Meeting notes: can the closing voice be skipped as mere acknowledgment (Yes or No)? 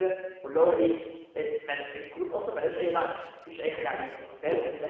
Yes